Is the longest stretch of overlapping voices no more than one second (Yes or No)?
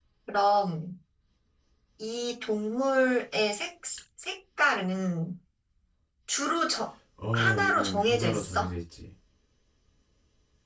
No